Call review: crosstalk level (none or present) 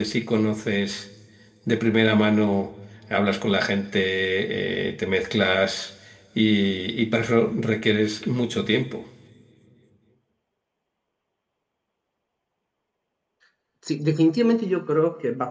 none